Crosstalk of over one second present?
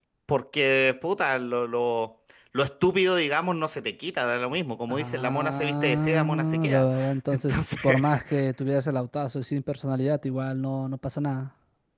Yes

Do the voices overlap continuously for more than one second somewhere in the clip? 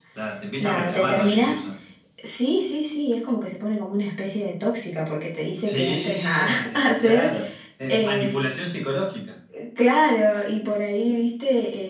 Yes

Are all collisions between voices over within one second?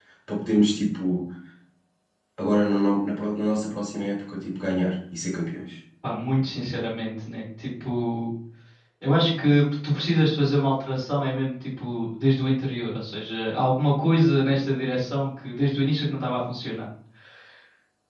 Yes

